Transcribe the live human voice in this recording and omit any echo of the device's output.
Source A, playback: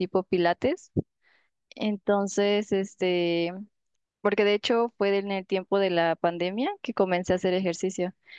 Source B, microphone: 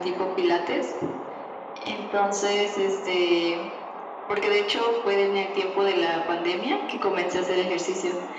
none

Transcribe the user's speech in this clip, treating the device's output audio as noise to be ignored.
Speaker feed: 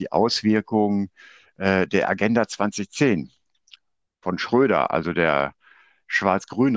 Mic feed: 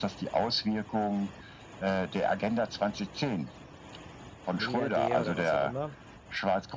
Milliardär oder was auch immer.

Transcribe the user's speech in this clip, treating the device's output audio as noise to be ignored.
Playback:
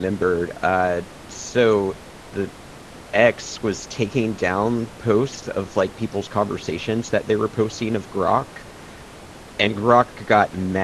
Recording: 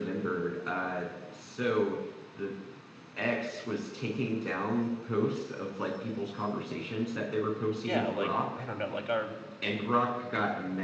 yeah, like I don't know, like our

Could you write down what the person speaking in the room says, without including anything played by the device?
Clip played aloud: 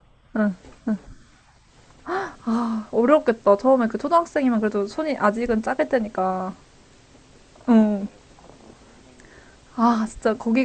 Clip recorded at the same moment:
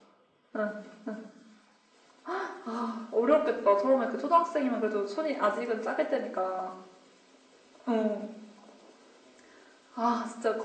none

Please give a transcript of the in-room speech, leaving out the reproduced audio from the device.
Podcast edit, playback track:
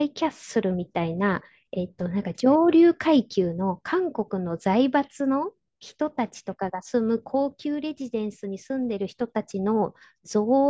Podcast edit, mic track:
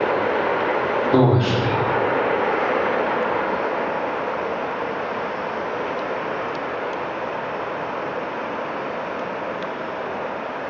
そうですね。

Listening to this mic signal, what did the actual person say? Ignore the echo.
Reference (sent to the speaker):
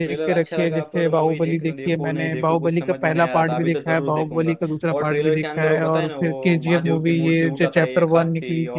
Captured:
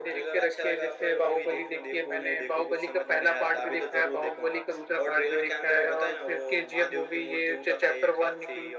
none

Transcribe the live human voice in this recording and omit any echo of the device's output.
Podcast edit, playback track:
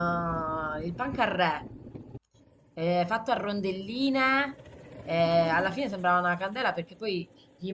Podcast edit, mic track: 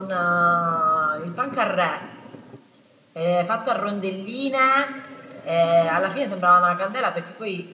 none

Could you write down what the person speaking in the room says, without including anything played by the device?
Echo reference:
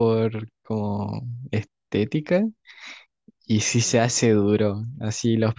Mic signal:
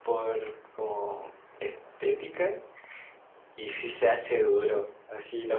none

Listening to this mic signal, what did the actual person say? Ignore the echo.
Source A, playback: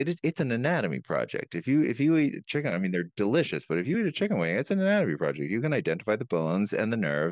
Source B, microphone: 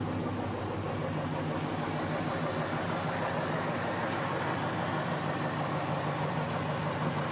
none

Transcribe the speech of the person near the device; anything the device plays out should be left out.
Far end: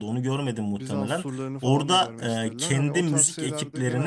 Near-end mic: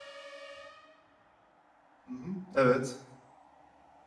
Hı hı. Evet,

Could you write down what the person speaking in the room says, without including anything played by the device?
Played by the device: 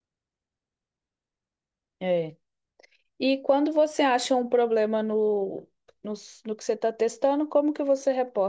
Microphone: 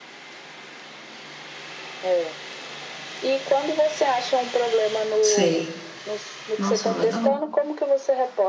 Sei. Nossa, legal.

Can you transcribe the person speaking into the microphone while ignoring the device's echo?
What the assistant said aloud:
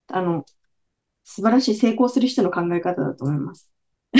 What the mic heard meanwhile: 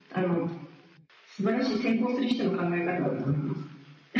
none

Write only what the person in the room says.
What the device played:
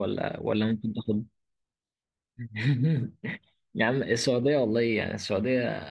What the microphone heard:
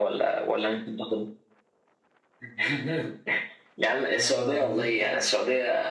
اه دي

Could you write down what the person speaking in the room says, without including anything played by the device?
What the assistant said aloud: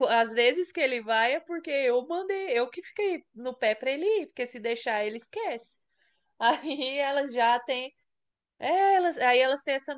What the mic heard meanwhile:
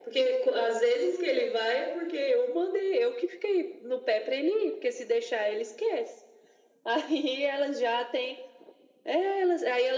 none

